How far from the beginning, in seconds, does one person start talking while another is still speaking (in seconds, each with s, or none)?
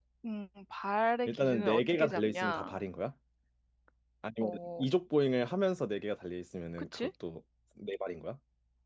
1.3 s